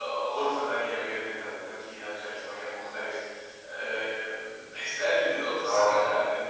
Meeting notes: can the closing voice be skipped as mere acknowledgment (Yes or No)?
Yes